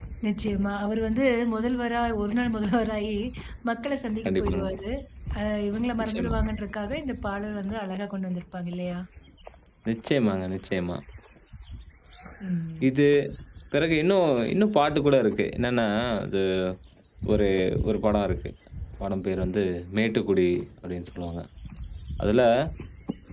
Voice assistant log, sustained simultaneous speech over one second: none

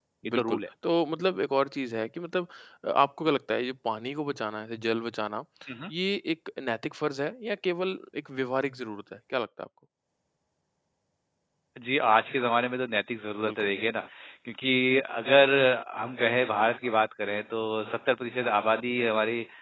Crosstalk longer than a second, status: none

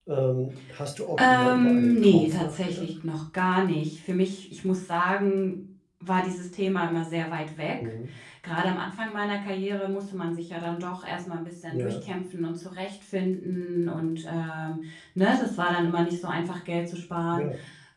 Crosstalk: present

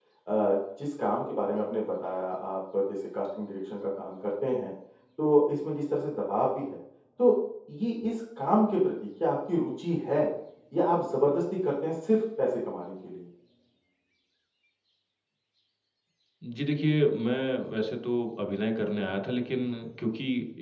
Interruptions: none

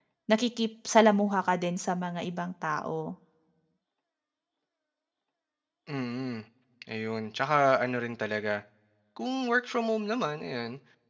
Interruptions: none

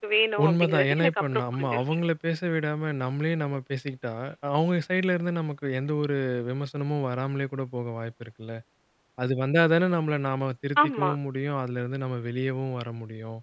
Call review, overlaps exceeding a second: present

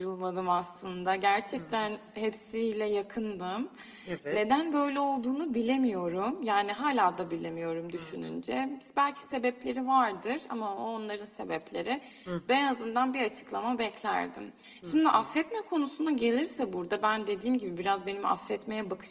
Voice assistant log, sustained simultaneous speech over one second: none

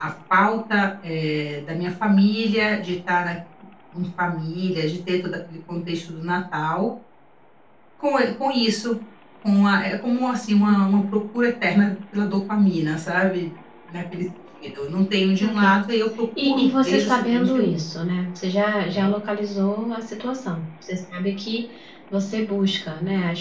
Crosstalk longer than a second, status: present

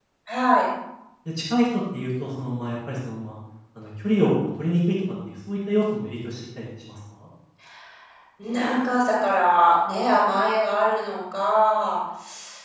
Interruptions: none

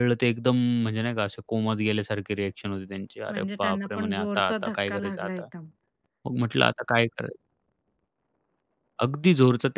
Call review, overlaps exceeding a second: present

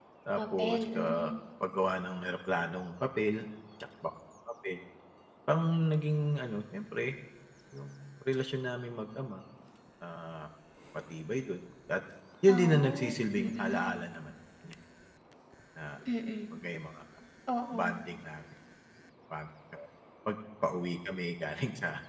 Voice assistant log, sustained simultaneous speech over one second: present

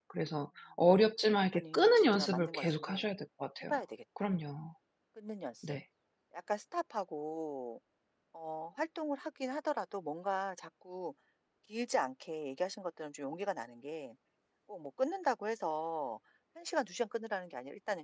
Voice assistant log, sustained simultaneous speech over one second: present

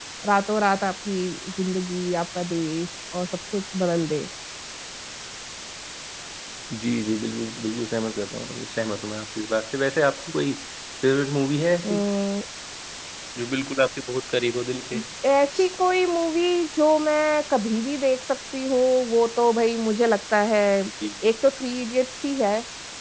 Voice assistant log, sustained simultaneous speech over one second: none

